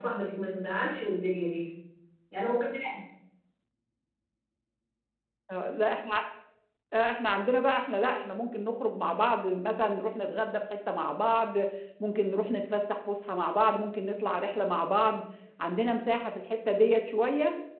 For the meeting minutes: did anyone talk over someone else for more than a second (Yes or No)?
No